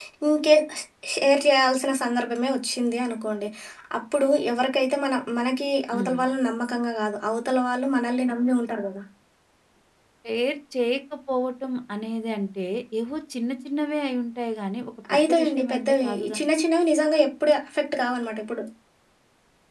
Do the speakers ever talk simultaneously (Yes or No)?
Yes